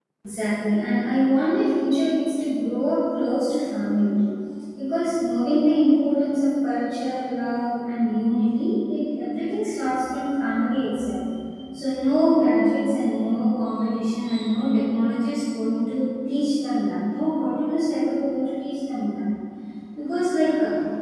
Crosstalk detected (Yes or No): No